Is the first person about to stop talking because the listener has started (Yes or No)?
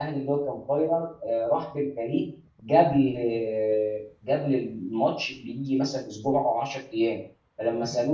No